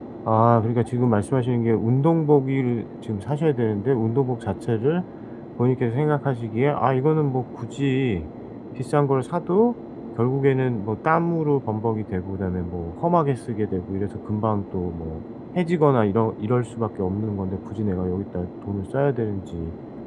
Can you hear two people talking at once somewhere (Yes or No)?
No